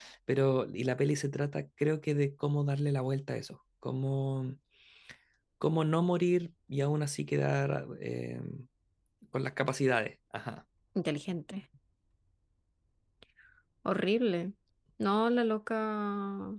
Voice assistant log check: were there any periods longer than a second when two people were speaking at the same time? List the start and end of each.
none

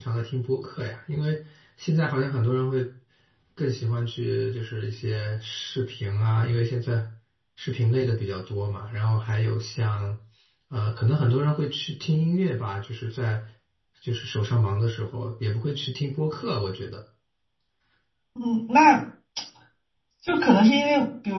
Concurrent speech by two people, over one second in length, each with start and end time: none

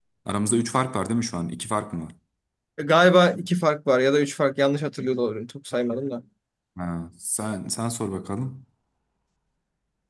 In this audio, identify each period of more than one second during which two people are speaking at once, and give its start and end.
none

